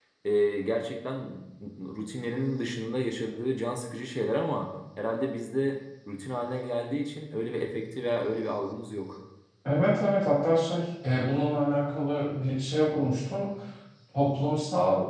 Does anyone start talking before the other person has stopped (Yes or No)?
No